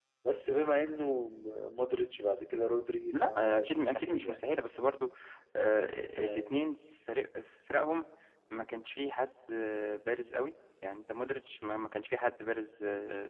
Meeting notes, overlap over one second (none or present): present